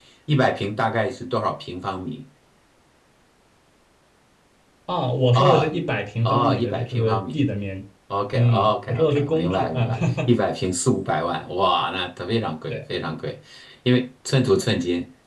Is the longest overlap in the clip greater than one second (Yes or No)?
Yes